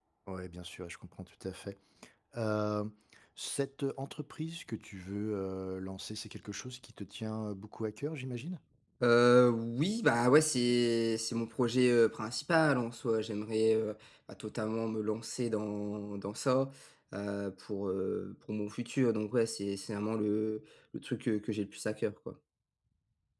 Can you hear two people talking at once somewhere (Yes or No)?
No